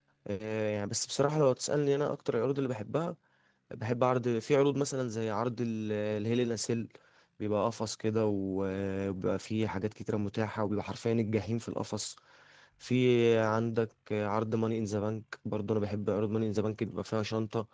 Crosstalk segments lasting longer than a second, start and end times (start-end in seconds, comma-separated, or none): none